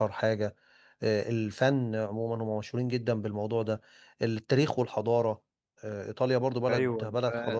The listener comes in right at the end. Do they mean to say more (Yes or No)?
Yes